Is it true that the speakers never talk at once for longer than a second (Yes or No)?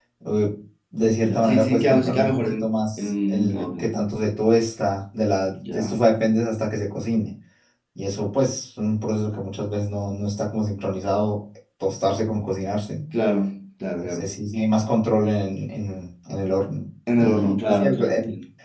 No